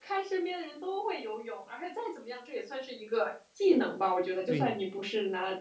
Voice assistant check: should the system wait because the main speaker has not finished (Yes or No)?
Yes